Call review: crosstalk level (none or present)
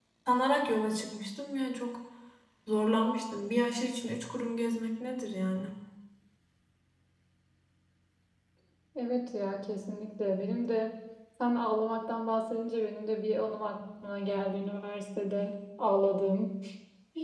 none